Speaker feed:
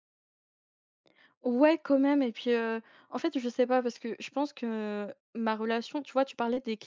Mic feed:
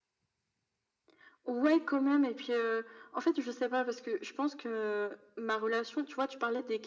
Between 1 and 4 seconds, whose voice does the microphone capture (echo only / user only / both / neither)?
echo only